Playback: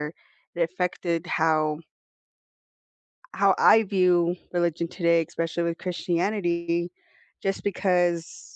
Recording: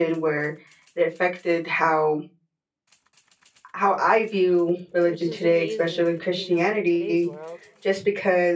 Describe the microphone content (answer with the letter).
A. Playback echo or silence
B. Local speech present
B